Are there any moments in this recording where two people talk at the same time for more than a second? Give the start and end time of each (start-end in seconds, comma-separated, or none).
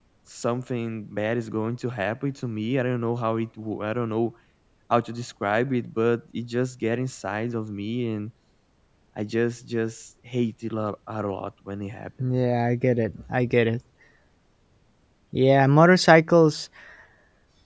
none